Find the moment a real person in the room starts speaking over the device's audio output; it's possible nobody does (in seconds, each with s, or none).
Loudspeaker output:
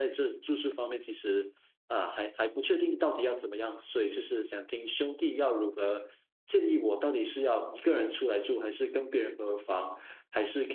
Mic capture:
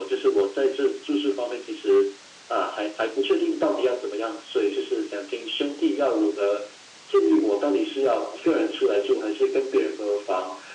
none